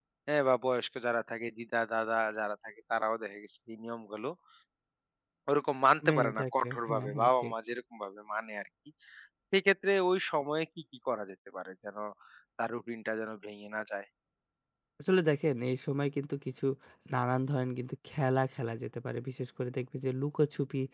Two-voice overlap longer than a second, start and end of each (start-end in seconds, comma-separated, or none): 6.1-7.5